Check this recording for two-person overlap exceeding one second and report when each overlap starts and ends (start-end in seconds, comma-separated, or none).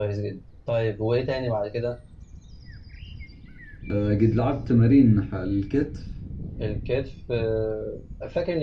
none